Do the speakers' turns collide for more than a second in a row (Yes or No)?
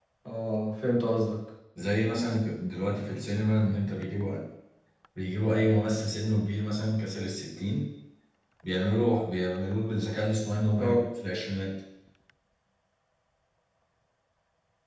No